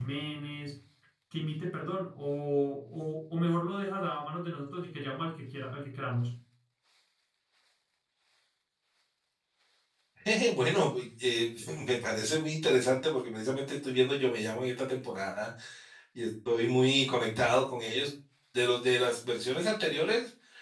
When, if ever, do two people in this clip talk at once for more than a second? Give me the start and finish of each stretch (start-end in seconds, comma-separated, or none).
none